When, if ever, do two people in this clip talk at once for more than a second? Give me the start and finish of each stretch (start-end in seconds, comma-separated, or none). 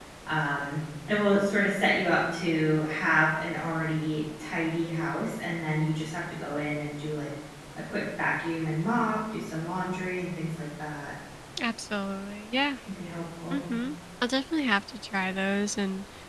none